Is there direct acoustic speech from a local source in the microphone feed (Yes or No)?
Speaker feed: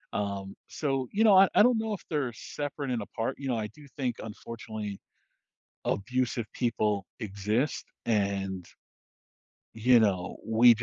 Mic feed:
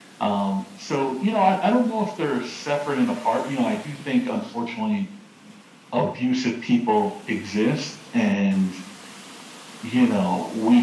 No